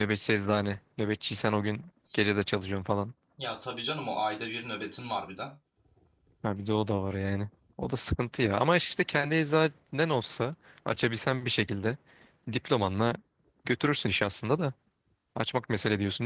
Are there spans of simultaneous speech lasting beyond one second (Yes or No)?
No